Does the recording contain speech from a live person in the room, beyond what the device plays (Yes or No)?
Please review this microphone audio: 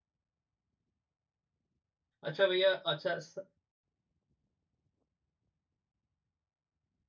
Yes